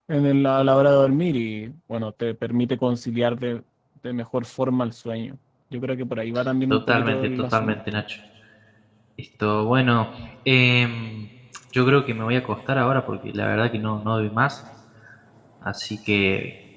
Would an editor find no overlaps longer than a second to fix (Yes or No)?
No